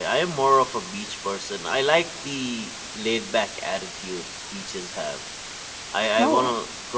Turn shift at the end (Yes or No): No